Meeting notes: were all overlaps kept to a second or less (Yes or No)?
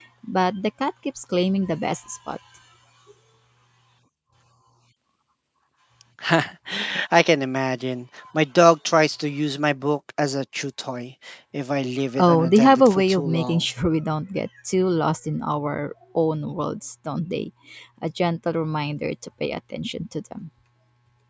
No